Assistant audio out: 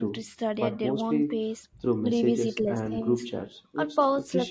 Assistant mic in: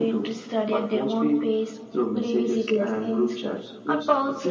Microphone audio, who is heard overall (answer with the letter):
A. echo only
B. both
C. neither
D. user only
A